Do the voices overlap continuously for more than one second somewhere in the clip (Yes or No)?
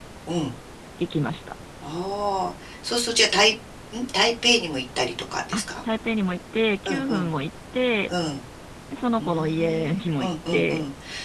Yes